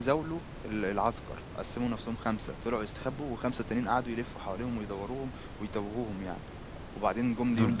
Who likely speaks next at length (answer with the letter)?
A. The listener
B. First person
A